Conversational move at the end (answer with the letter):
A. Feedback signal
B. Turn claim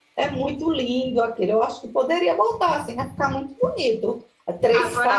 B